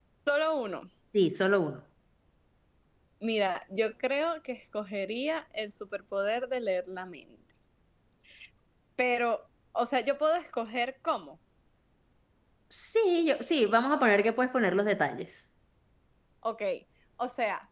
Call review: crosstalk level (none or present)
none